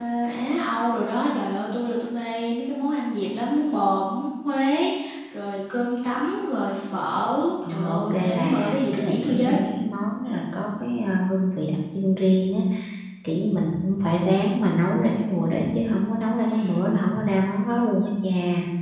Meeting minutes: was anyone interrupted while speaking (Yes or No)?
Yes